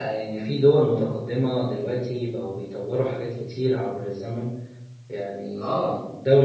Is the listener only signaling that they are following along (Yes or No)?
Yes